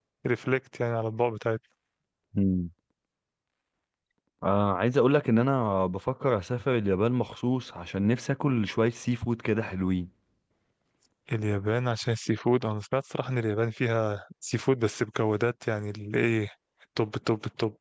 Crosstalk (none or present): none